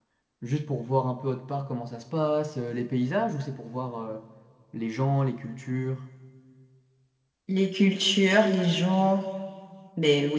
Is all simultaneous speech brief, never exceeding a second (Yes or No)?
Yes